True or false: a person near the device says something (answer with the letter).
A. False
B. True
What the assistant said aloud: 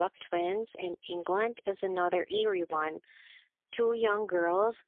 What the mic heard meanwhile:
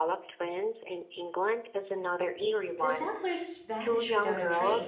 B